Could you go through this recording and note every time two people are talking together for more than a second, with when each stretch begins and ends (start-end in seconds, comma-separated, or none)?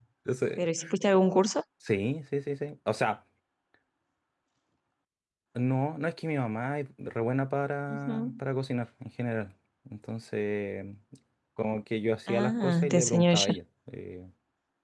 12.3-13.5